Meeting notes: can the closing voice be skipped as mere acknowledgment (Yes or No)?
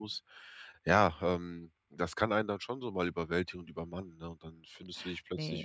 Yes